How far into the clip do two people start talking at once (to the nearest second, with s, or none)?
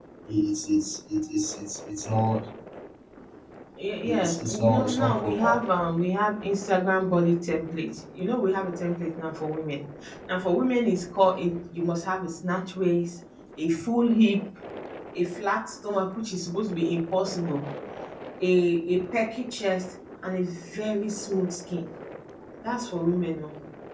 4 s